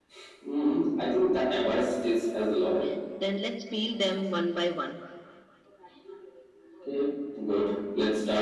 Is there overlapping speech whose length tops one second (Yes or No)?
No